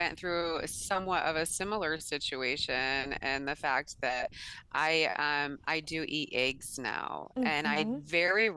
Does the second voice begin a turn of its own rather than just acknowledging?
No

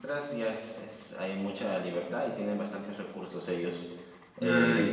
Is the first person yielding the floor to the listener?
No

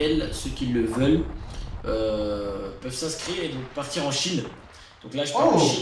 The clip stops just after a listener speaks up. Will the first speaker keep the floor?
Yes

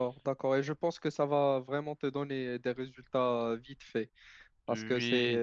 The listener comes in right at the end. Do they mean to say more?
No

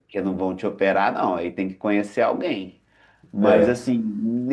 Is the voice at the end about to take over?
No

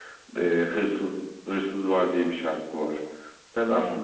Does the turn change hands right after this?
No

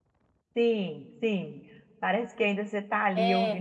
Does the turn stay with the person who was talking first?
No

